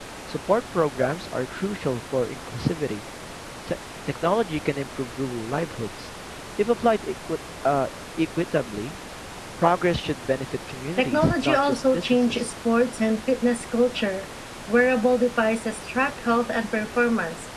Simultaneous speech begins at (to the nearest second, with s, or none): 11 s